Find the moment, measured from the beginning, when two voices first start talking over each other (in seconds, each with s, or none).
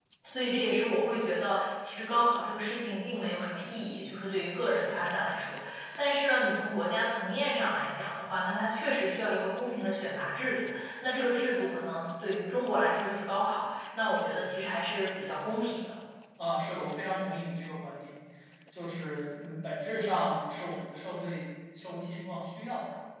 none